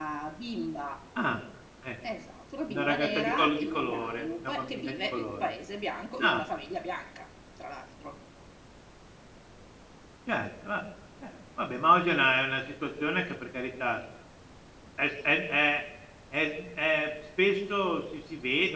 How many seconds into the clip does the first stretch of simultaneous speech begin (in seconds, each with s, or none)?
2.7 s